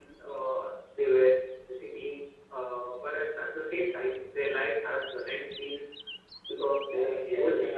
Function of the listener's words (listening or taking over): taking over